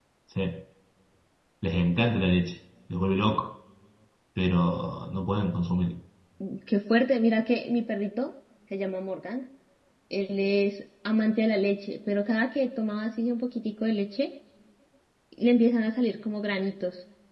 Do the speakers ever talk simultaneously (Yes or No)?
No